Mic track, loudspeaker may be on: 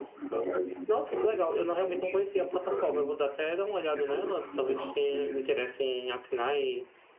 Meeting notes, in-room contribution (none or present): present